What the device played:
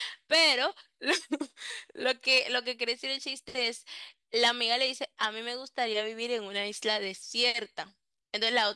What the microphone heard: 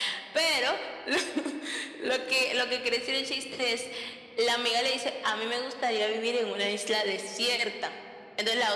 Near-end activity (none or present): none